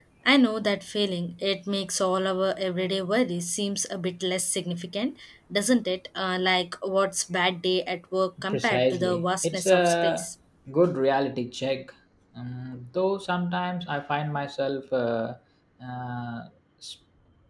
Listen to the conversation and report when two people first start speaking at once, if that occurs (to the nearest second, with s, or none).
8 s